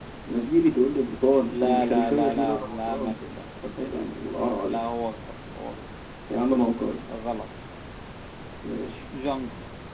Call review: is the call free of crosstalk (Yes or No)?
No